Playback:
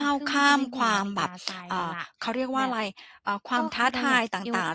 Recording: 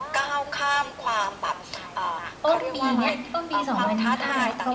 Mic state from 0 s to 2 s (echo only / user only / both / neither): echo only